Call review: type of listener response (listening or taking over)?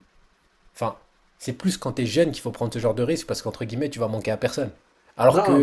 listening